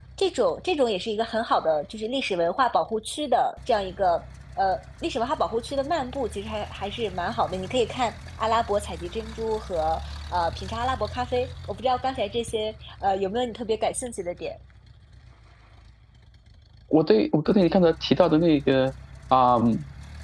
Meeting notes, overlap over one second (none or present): none